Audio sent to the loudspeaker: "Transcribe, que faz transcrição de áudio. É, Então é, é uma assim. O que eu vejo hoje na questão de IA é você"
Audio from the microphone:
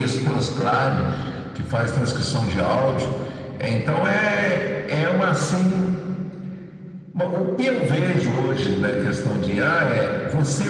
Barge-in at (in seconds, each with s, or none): none